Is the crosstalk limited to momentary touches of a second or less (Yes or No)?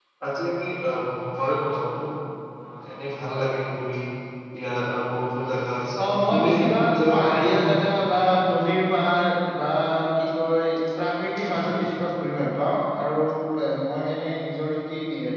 No